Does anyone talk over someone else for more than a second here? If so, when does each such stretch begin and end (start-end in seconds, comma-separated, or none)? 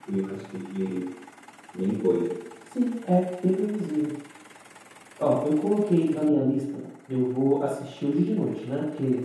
none